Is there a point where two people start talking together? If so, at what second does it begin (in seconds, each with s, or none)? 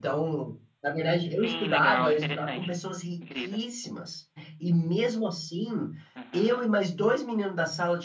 1.3 s